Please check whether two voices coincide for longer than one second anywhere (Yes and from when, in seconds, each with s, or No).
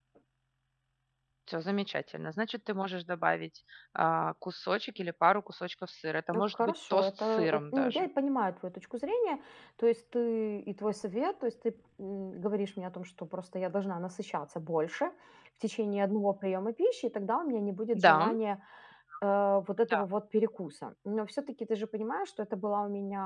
Yes, from 6.3 s